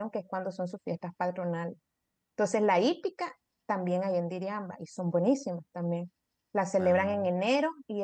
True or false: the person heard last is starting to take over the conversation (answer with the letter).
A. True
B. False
B